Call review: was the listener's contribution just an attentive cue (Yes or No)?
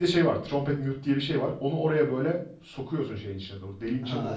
Yes